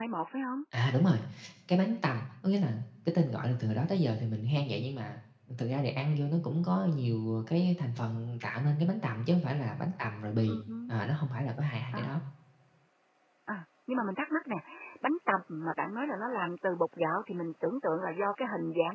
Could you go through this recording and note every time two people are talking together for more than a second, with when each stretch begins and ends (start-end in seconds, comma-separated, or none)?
none